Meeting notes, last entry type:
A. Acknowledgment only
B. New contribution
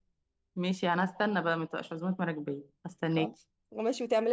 B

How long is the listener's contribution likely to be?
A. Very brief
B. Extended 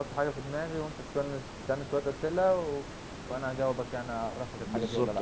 B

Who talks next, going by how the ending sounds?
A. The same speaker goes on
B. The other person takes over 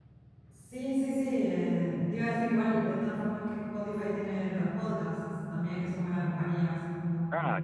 B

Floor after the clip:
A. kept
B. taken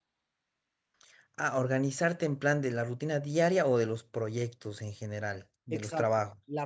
B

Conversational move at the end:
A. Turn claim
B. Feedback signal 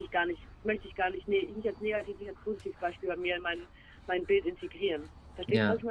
A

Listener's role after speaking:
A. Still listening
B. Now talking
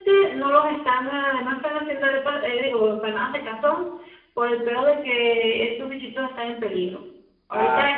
A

